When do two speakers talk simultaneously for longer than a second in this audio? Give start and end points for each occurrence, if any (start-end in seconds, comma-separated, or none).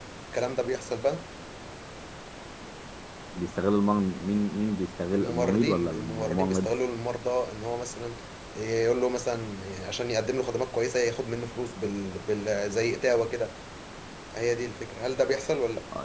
5.1-6.7